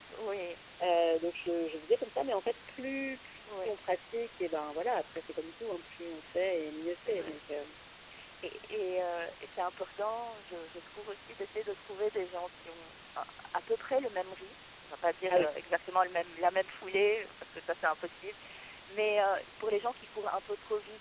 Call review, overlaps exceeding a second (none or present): none